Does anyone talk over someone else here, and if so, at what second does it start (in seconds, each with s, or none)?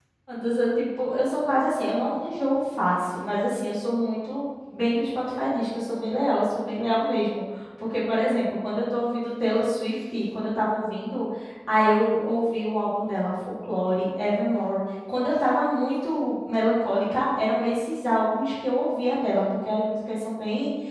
none